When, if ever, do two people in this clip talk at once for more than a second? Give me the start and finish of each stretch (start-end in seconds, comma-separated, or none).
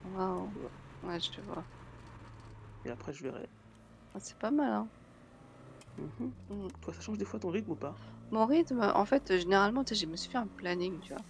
none